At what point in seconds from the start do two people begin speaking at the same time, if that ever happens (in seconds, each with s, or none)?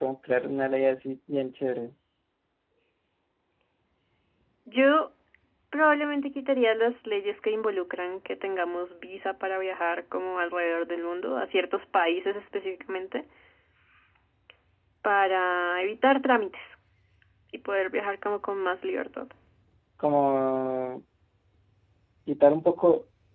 none